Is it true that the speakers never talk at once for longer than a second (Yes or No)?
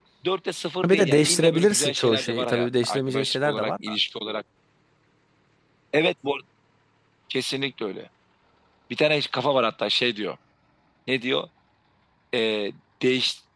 No